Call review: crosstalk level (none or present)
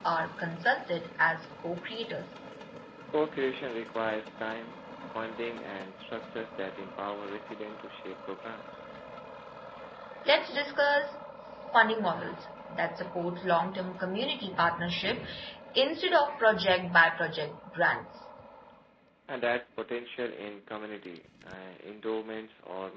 none